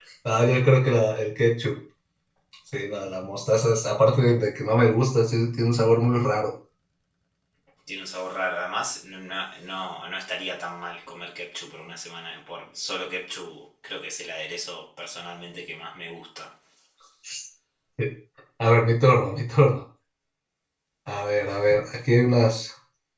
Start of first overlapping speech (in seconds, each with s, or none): none